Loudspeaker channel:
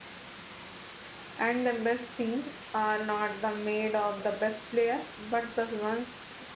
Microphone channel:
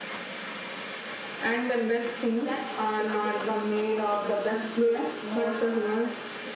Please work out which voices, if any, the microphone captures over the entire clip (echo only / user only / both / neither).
both